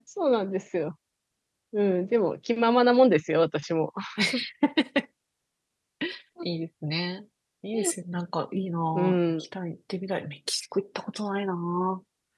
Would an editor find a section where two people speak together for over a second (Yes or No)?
No